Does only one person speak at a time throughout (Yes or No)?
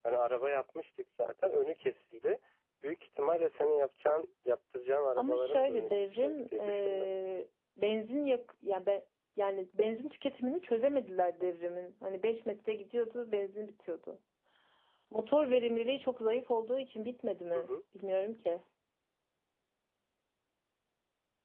No